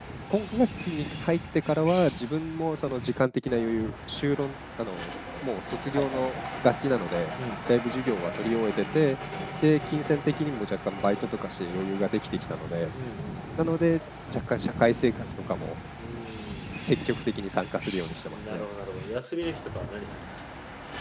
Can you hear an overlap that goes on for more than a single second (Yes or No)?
No